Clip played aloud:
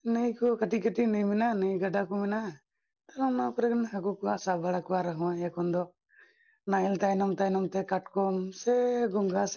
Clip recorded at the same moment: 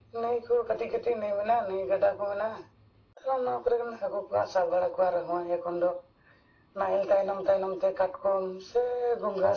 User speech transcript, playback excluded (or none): none